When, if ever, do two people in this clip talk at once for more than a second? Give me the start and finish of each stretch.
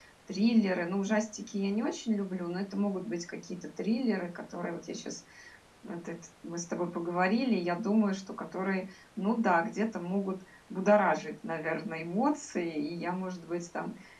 none

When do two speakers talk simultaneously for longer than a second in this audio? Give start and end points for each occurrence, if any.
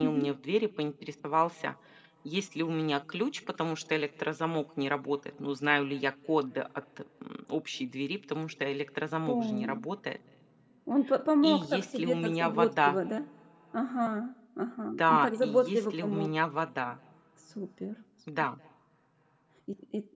11.4-13.0, 14.9-16.3

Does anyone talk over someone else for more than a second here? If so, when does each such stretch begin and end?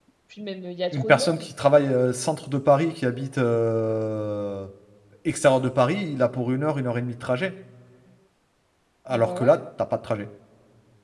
none

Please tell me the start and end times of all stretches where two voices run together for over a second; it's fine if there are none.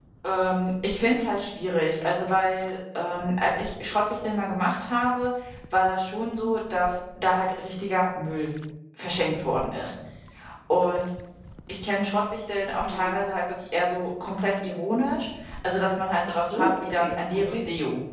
16.3-17.6

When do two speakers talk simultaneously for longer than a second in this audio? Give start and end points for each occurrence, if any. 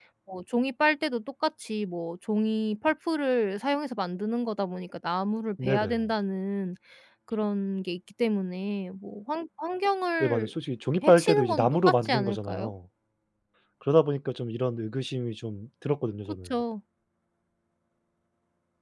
11.1-12.7

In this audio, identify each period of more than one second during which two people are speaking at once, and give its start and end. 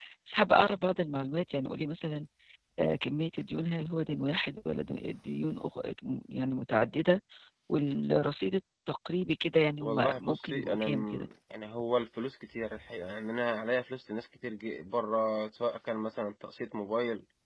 9.8-11.3

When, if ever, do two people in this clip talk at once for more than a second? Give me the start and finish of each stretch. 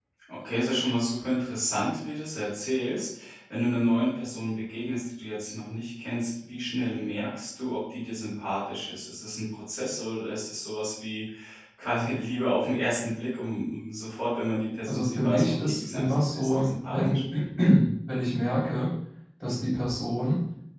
14.9-17.2

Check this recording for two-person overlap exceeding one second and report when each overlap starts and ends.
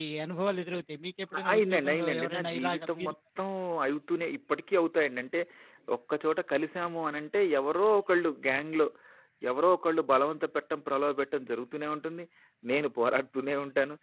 1.4-3.1

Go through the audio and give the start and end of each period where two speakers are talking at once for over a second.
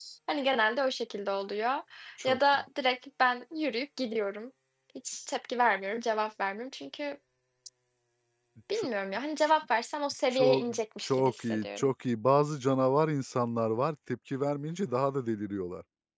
10.3-11.9

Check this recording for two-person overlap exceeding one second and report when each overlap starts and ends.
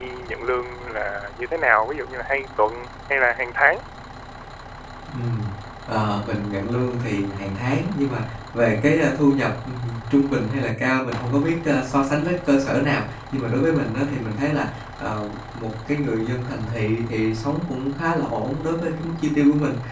none

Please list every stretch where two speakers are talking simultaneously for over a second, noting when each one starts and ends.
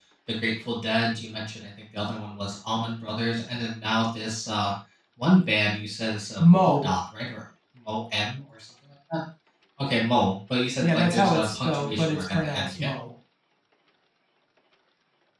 10.8-12.9

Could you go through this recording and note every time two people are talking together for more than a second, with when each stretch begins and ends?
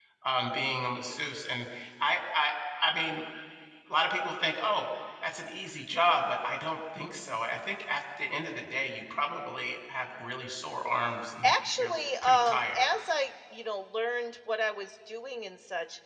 11.4-12.8

